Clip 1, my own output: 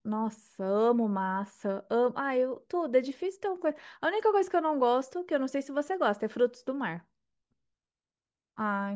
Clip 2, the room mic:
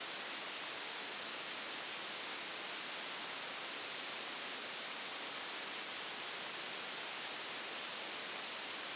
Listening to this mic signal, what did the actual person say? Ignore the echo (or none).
none